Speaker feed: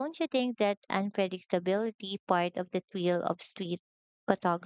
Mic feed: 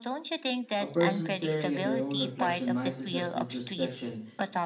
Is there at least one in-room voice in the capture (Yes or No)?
Yes